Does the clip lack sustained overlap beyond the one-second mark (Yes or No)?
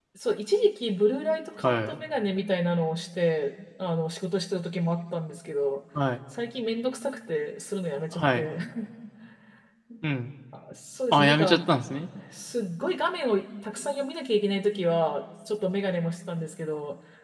Yes